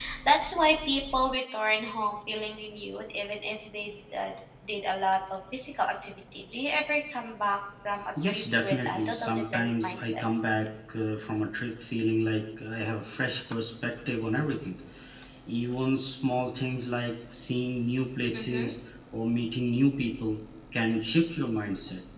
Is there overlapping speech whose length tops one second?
Yes, from 8.2 s

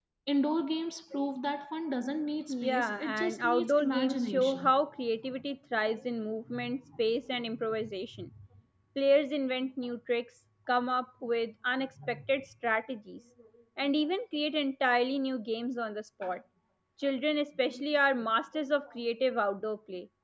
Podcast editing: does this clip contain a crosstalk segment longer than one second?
Yes, from 2.5 s

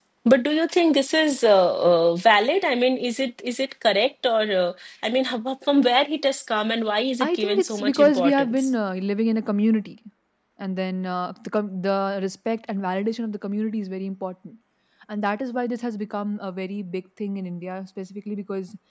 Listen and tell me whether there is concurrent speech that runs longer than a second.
Yes, from 7.2 s

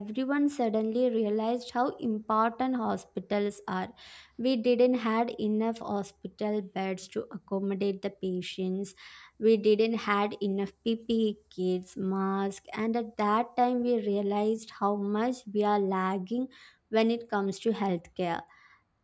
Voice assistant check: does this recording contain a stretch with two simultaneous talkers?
No

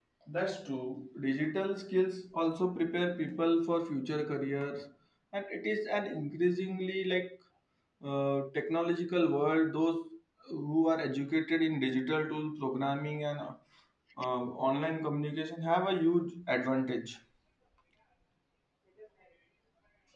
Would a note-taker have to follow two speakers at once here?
No

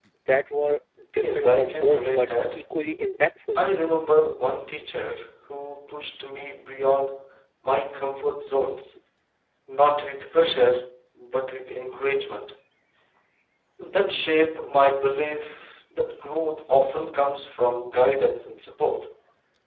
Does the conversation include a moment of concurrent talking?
Yes, from 1.2 s

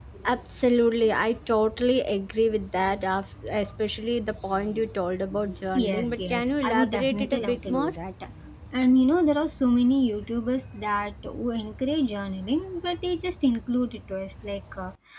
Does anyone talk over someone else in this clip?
Yes, from 5.7 s

